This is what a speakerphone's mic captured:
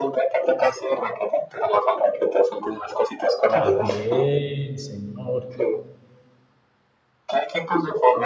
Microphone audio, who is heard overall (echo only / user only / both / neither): both